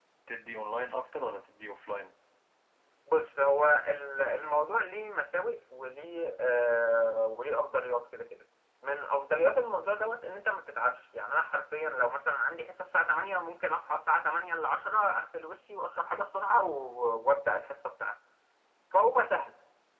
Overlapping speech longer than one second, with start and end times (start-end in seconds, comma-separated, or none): none